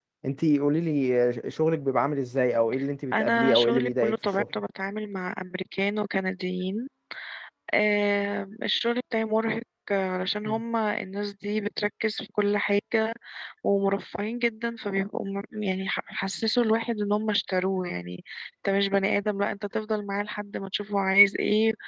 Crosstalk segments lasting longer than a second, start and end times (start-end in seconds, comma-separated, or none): 3.1-4.4